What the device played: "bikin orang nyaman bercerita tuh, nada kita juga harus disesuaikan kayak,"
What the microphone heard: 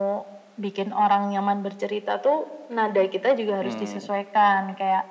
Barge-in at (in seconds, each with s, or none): 3.6 s